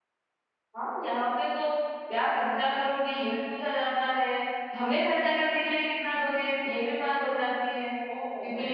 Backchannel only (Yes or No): No